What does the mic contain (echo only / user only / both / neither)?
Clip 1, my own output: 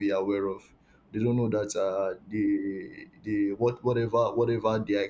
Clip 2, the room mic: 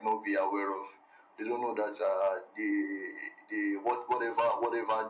echo only